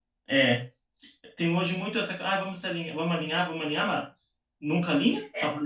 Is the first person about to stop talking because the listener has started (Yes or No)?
Yes